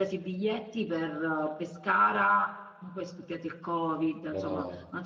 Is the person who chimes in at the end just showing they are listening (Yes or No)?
Yes